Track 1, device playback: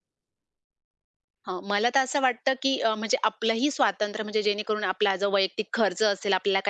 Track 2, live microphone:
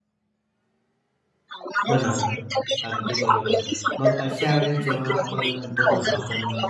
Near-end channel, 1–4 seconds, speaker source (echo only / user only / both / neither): both